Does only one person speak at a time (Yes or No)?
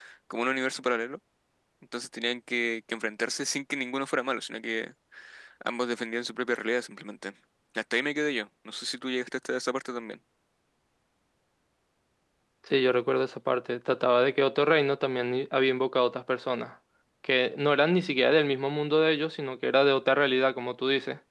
Yes